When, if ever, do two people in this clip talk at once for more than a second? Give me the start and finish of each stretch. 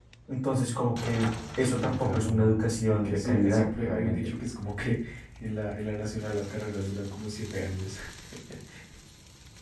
1.6-4.2

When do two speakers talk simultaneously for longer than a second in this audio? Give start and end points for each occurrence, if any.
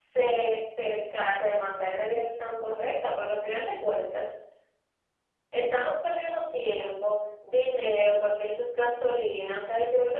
none

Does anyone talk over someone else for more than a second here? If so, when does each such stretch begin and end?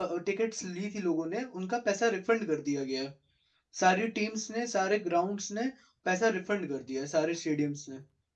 none

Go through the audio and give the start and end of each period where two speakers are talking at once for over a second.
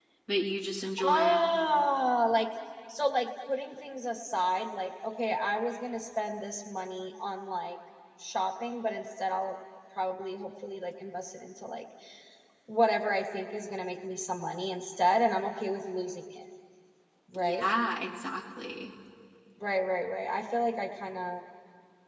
none

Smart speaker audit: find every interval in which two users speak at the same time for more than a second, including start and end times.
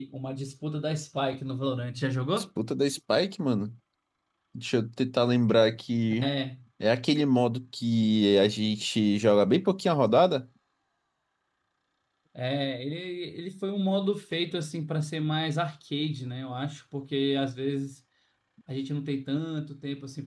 none

